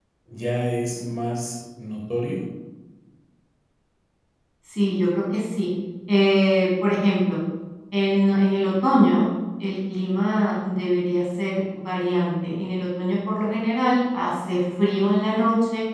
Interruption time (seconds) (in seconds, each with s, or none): none